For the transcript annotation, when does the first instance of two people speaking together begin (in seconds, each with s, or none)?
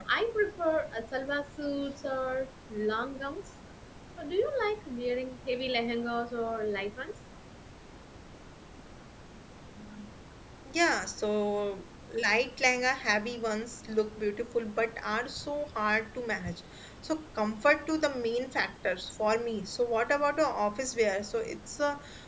none